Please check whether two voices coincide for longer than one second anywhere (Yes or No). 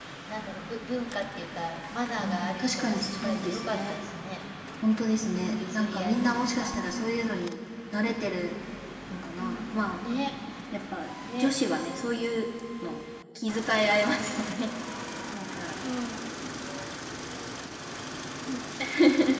Yes